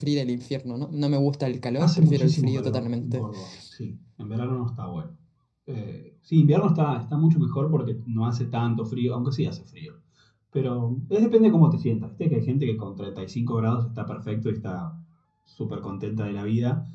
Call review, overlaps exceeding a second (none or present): present